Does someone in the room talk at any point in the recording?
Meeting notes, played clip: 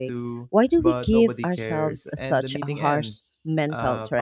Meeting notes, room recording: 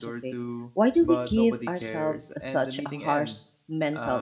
No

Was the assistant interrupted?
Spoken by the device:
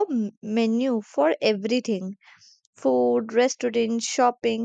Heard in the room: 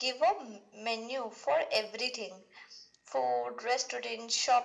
No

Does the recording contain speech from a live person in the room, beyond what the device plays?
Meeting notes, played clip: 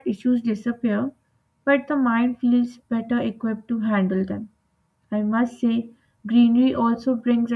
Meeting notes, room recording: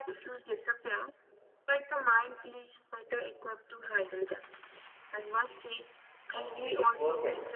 Yes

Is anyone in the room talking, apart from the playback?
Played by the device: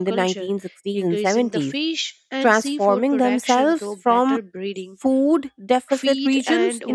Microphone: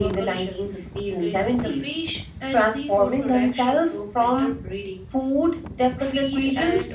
No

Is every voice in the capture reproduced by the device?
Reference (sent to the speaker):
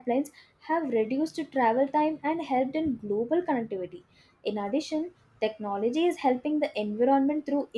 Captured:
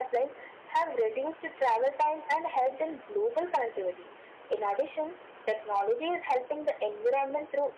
Yes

